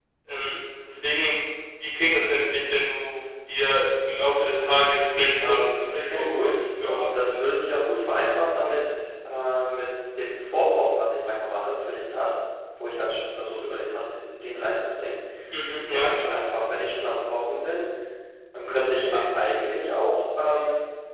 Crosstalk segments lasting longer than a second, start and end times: 5.4-7.3

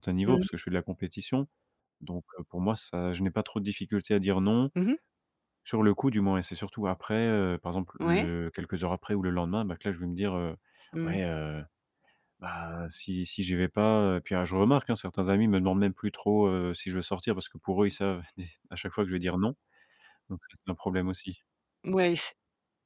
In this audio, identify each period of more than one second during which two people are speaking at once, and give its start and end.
none

